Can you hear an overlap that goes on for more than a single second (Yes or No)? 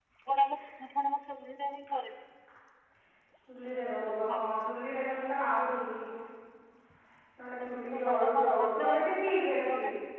Yes